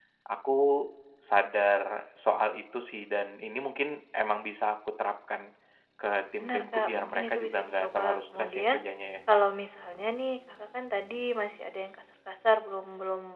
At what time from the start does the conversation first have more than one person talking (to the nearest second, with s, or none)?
6 s